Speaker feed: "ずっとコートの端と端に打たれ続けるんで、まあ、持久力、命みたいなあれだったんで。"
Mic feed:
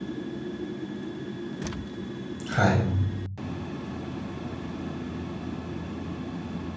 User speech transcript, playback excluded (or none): はい。